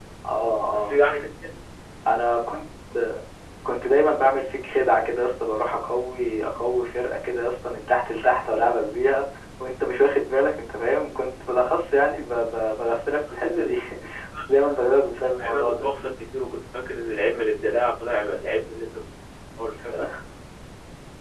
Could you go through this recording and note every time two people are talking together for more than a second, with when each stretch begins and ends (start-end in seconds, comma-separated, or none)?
none